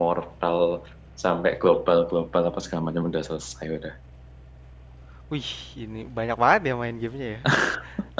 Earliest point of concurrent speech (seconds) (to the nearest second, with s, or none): none